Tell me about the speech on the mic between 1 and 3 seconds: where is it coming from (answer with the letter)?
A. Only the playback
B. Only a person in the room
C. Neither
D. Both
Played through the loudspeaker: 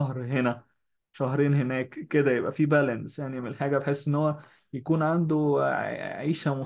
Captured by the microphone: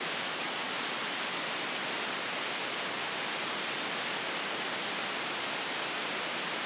C